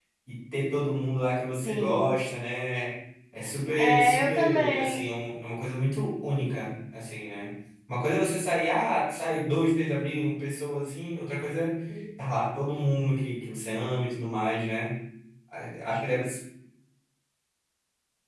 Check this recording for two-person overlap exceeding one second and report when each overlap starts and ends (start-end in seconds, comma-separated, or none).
3.8-5.0